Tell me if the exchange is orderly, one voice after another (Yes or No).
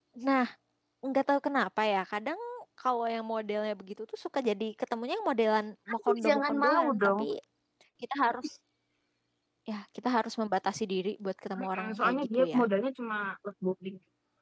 No